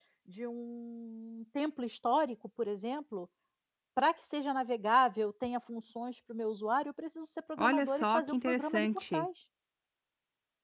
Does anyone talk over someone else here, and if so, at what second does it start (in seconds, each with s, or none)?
7.6 s